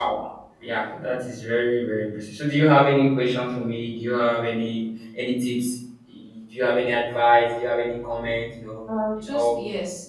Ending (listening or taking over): taking over